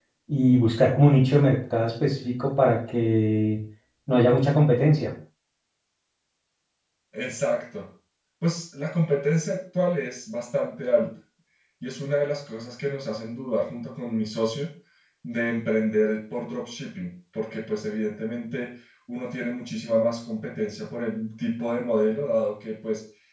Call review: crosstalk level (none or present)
none